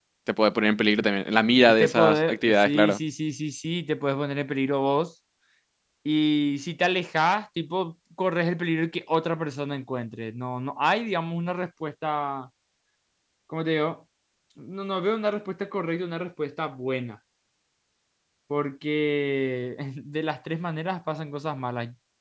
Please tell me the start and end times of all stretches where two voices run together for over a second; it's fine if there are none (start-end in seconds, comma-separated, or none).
1.7-3.0